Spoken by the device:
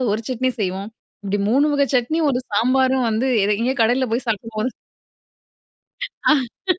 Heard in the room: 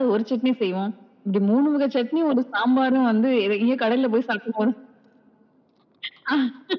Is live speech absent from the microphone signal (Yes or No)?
Yes